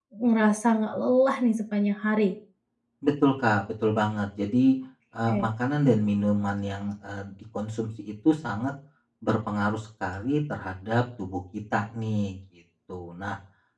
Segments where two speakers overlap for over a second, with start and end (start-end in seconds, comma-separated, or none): none